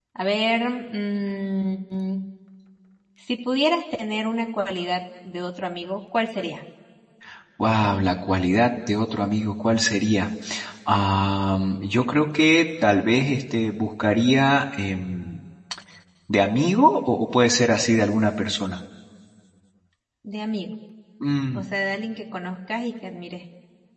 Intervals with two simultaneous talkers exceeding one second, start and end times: none

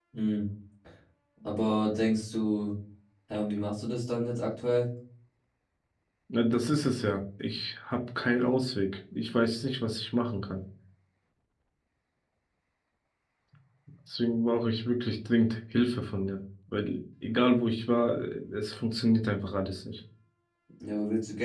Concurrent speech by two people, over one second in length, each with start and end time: none

